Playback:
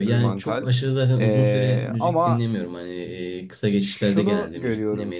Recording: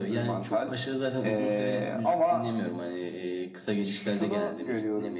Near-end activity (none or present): none